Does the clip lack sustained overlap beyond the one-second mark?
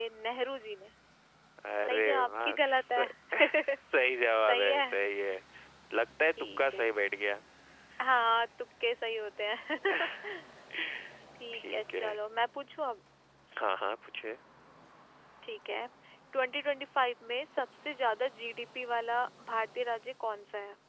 No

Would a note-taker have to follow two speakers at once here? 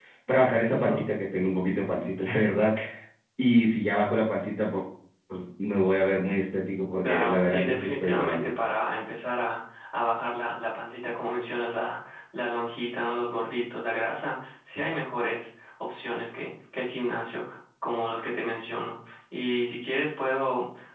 Yes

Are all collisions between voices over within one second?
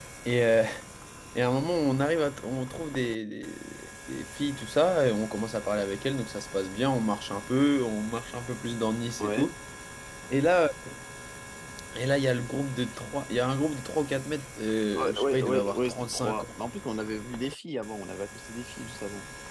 No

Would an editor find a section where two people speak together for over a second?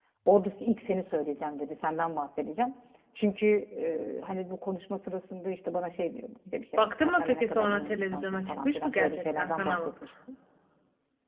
Yes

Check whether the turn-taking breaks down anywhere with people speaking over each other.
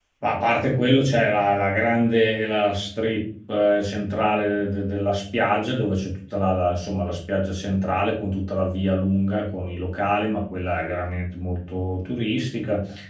No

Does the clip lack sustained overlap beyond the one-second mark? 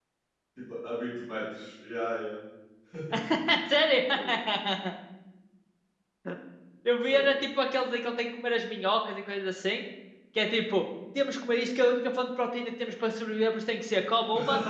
Yes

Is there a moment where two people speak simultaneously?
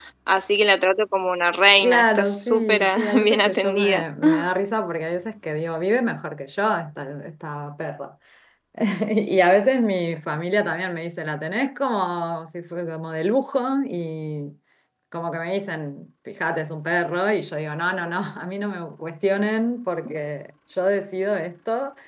Yes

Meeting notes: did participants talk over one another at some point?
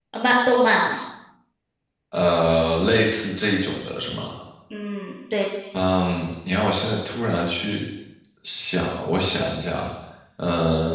No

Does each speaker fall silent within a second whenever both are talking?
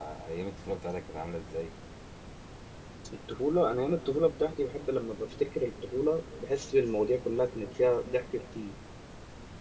Yes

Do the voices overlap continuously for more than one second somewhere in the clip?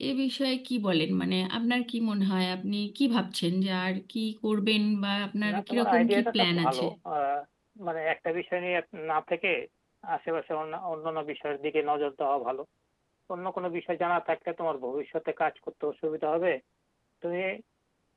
Yes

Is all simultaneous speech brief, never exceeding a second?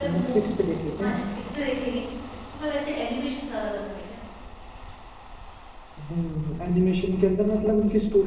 Yes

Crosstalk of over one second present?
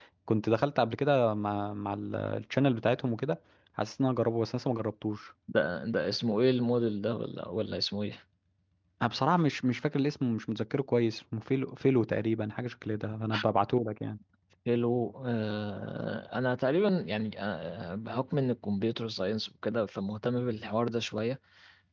No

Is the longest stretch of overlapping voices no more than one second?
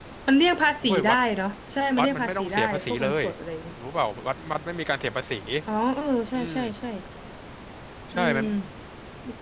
No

